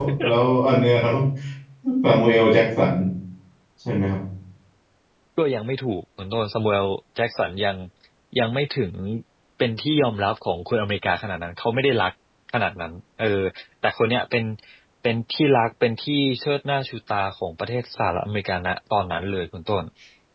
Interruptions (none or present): none